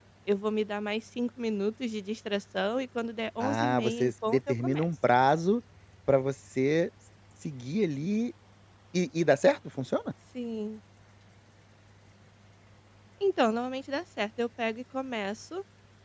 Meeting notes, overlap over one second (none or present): present